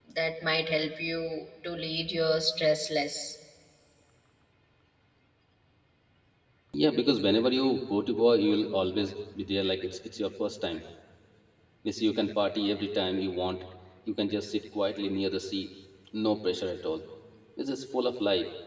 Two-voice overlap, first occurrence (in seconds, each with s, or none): none